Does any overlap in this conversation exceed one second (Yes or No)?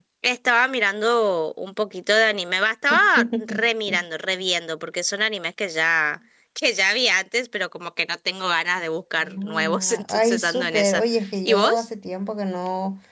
Yes